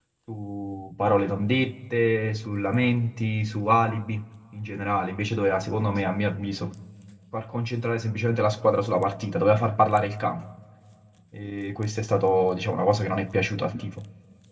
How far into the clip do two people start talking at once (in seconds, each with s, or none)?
none